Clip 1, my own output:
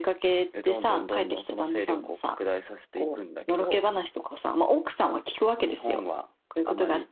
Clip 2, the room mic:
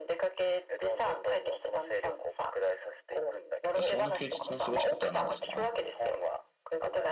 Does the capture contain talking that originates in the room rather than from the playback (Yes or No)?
Yes